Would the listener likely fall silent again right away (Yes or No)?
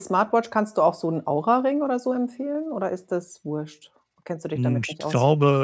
No